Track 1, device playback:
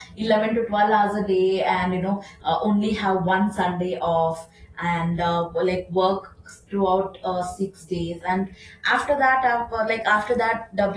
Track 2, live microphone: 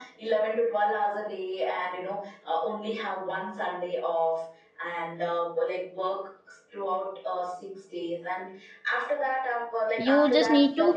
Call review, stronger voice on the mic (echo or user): user